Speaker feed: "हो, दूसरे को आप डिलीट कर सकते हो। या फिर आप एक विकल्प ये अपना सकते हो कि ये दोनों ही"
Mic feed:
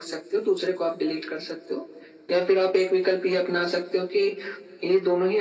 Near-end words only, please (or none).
none